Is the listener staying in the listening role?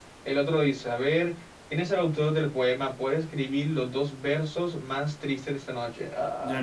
No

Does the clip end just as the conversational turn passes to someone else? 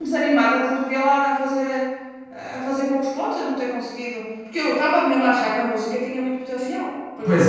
Yes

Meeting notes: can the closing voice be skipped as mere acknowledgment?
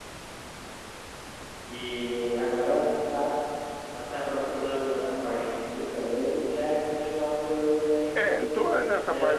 No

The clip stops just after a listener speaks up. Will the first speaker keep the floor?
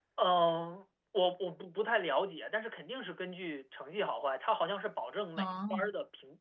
Yes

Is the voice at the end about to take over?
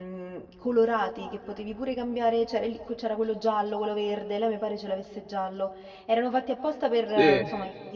Yes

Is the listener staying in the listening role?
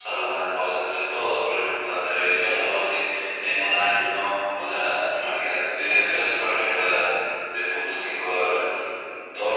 Yes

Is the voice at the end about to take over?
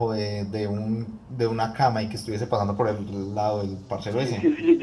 Yes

